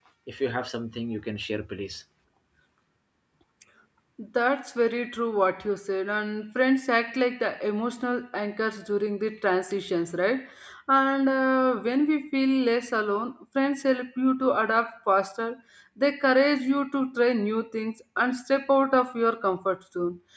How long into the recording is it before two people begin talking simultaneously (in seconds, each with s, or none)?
none